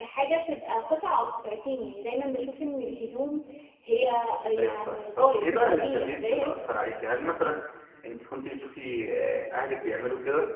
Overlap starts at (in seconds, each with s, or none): 4.6 s